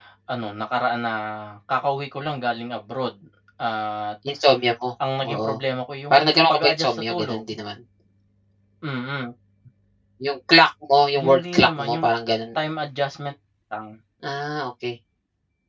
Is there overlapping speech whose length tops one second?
Yes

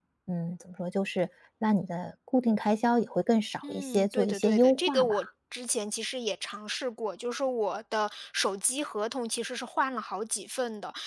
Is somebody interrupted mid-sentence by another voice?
Yes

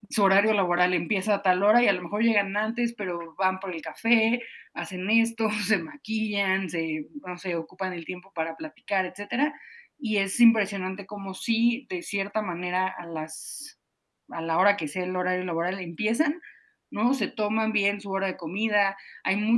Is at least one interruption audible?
No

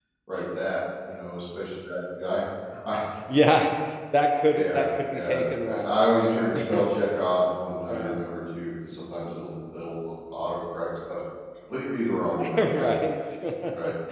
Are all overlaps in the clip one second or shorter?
No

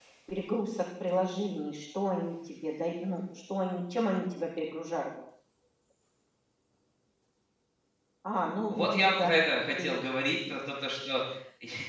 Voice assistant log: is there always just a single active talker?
No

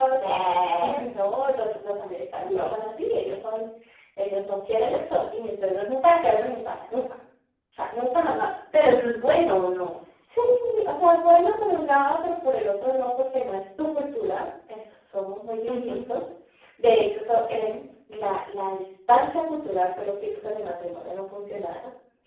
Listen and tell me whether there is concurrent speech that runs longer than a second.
No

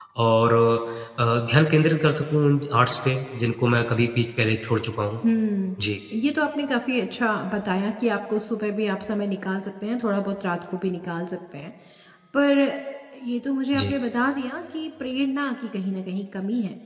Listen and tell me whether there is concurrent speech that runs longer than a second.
No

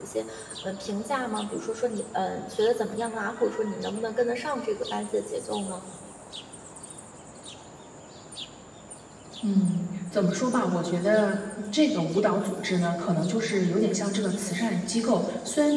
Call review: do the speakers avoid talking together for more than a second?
Yes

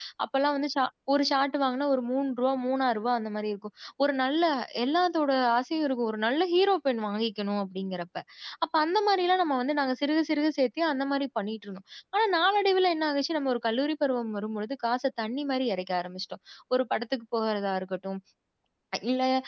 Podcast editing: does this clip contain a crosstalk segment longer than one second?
No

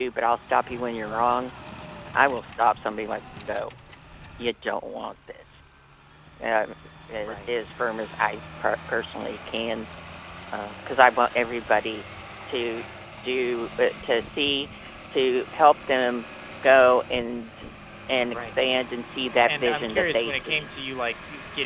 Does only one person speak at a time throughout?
No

